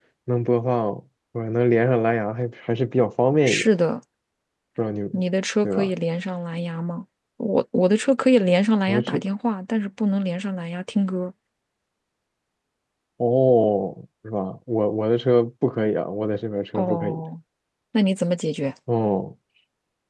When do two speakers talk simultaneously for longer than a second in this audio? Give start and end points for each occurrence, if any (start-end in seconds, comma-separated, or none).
none